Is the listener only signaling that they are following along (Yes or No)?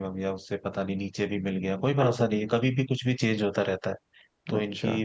Yes